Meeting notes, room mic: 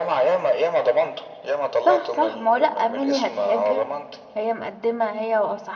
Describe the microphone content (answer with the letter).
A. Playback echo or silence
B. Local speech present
B